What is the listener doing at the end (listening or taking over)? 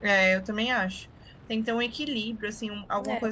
listening